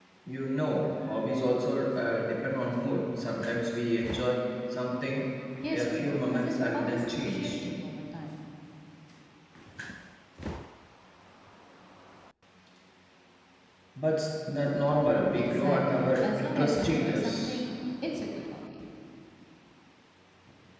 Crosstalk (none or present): present